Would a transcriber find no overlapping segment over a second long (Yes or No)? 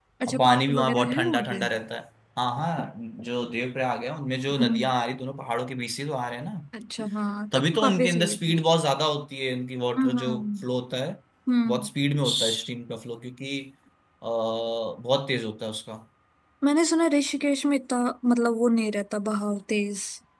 No